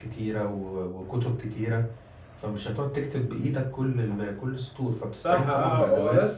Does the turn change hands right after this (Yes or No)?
Yes